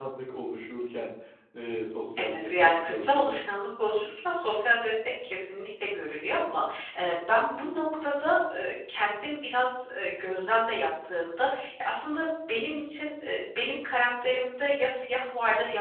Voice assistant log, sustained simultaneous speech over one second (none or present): present